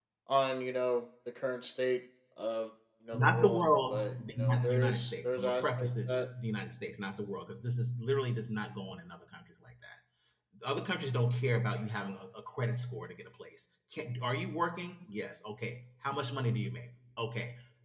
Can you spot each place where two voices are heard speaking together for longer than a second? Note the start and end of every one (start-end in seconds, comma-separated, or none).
3.1-6.3